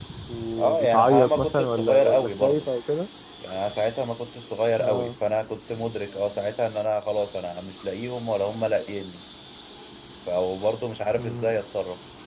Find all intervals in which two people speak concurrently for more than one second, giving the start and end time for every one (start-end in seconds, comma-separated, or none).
0.6-2.7